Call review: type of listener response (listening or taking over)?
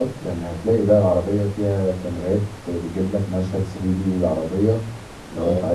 listening